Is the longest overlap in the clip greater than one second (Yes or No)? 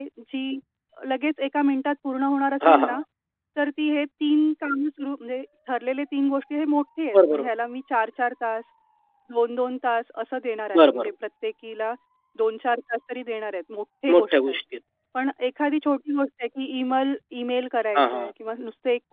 No